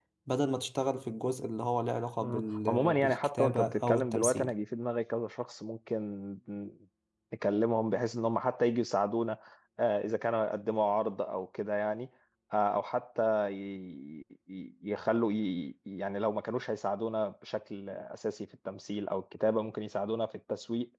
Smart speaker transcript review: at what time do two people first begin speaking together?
2.2 s

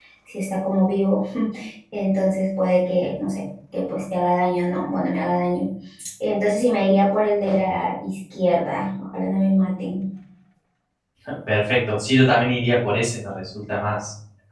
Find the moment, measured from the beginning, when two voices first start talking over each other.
none

